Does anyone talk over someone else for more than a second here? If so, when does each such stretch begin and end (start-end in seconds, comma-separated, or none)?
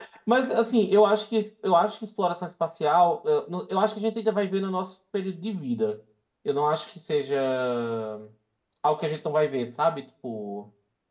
none